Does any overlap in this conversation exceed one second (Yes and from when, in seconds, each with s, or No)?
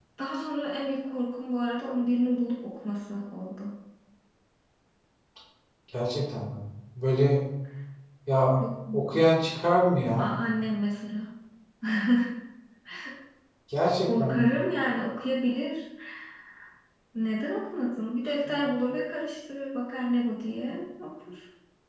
No